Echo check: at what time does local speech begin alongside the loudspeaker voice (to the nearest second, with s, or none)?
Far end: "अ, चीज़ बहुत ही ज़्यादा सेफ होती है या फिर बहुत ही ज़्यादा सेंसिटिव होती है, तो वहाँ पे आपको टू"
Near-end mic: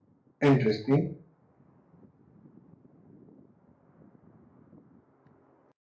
0 s